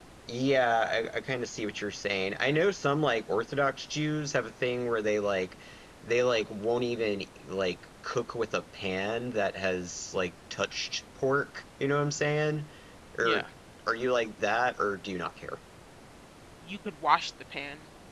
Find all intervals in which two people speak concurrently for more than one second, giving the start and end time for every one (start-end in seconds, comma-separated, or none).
none